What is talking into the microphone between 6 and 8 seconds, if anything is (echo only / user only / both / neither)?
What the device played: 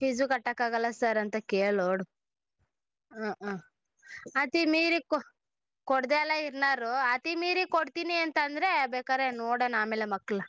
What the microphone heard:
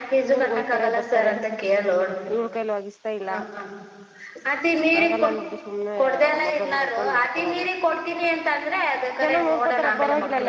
both